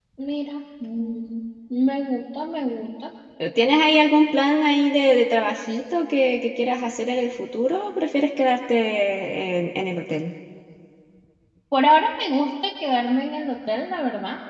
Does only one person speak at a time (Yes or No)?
Yes